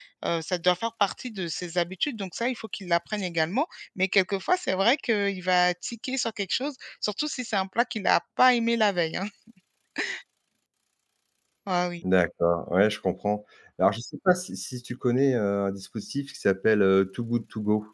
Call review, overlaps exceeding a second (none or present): none